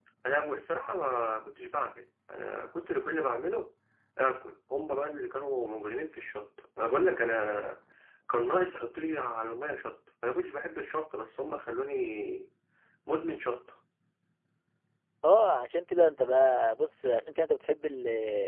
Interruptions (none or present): none